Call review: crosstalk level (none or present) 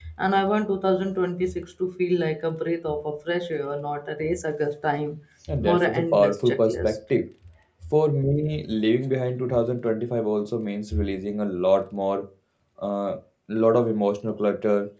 present